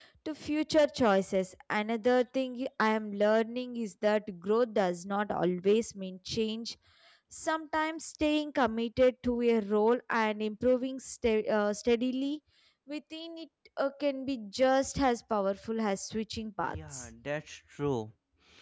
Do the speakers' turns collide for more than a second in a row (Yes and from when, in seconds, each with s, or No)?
No